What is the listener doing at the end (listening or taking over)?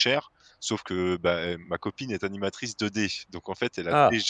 listening